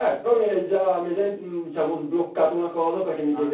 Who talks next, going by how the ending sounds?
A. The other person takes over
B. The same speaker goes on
B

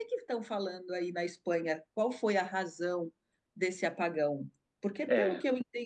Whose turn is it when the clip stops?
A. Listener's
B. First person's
B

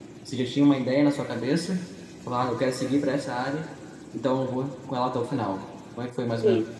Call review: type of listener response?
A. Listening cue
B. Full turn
B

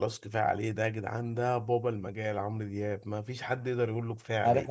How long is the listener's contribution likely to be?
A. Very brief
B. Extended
B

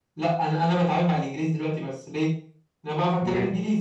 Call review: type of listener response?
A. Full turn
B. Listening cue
B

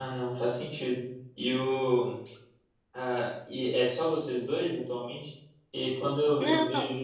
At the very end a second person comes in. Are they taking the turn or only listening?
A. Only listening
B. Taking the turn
A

